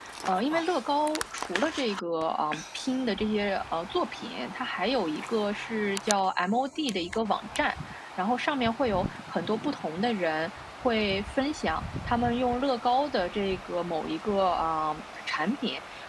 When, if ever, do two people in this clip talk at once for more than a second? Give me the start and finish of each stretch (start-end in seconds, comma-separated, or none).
none